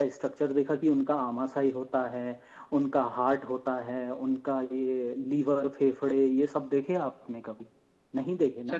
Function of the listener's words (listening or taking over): taking over